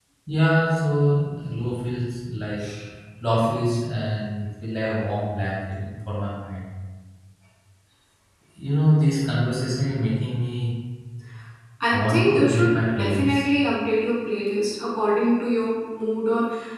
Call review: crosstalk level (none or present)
present